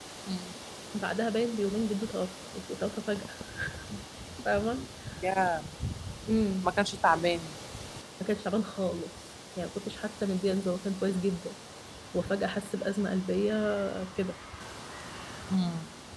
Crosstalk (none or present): none